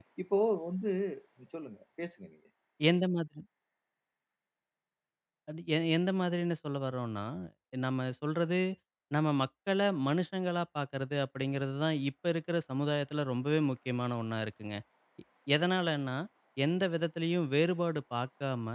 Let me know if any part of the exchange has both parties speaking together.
No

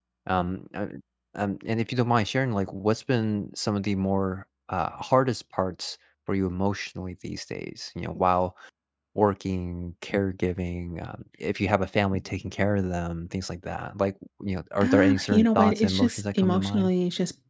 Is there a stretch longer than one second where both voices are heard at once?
Yes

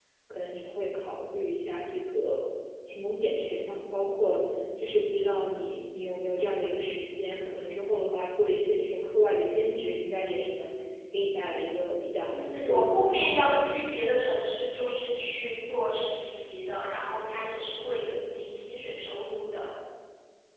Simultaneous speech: Yes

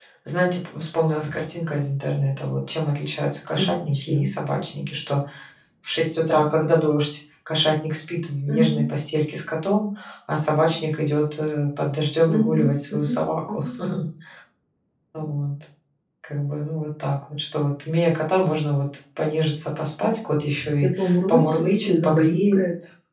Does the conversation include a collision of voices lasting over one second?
Yes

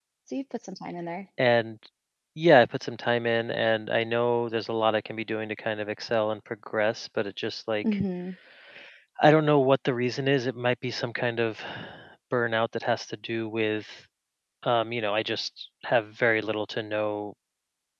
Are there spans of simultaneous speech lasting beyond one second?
No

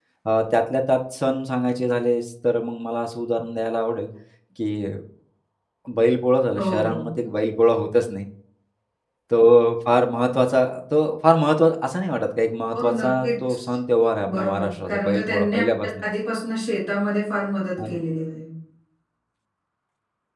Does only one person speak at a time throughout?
No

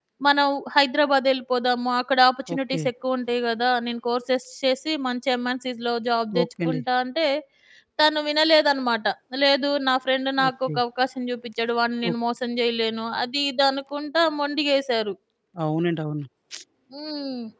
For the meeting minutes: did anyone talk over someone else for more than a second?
No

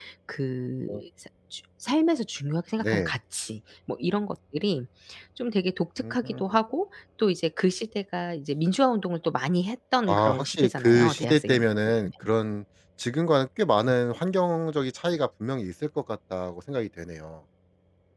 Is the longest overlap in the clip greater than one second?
Yes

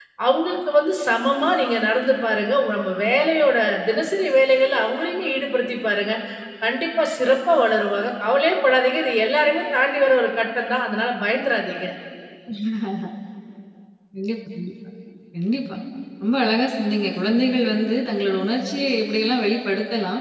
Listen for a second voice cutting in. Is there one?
No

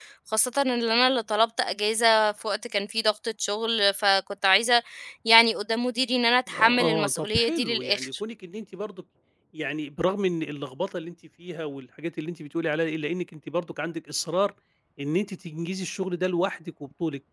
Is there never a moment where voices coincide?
No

